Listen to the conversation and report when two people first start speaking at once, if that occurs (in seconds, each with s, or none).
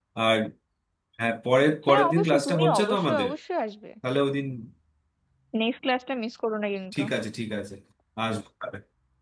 1.9 s